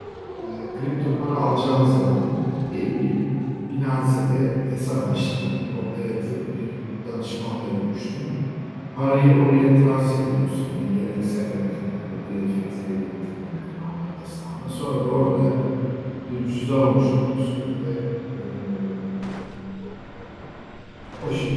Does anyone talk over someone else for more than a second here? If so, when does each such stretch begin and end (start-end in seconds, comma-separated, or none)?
none